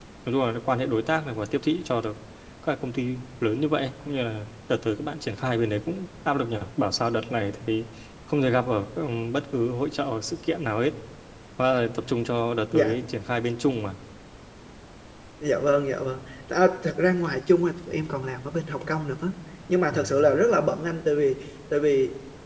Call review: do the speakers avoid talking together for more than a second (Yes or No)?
Yes